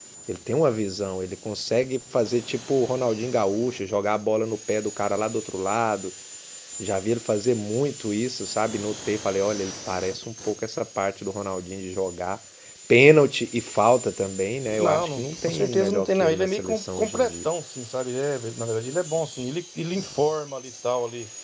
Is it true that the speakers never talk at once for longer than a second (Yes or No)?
No